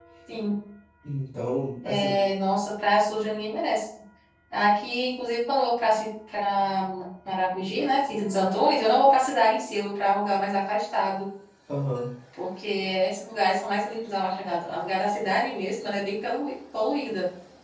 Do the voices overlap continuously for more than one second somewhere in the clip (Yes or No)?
No